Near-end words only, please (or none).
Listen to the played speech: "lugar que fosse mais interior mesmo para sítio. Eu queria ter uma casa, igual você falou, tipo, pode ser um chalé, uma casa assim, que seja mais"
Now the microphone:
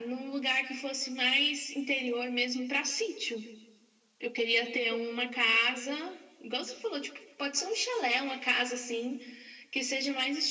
none